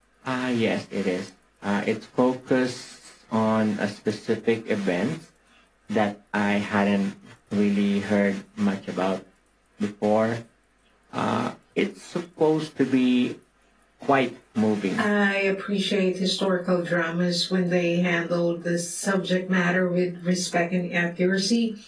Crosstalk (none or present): none